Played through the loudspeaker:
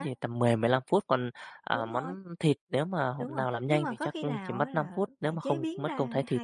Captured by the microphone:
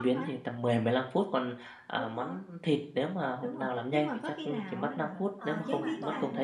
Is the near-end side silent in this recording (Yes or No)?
No